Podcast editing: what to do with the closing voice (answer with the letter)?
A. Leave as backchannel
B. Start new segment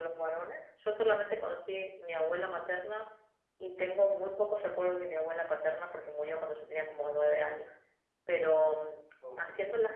A